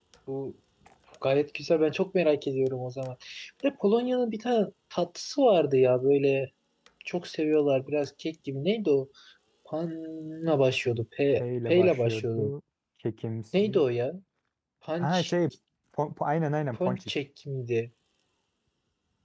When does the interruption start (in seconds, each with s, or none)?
11.3 s